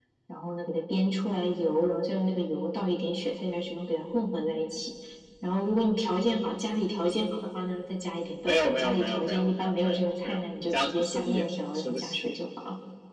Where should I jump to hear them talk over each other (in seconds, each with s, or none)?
8.4 s